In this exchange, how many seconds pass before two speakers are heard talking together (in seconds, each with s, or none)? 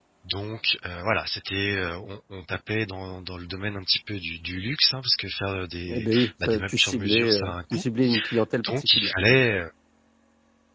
5.9 s